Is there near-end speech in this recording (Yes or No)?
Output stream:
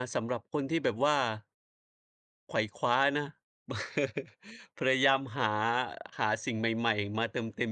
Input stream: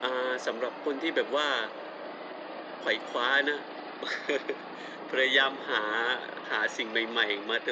No